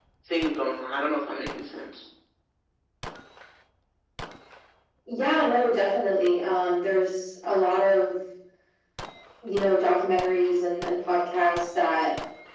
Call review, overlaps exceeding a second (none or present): none